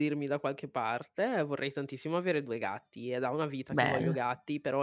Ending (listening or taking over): listening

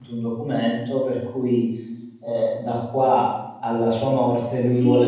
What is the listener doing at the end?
taking over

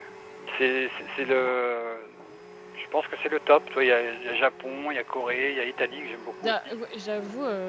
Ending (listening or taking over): taking over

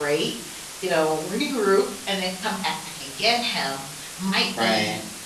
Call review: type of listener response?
listening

